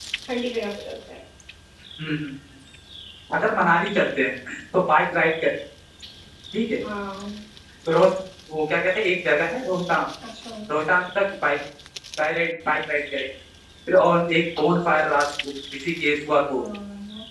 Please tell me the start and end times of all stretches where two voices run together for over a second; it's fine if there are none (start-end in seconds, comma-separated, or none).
none